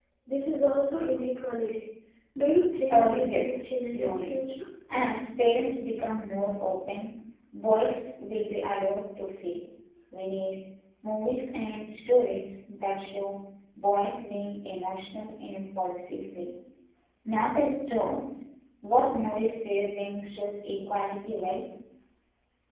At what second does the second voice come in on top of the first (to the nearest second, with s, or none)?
3 s